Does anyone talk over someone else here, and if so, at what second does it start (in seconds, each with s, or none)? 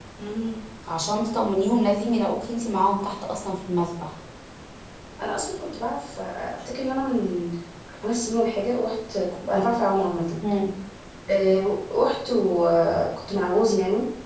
none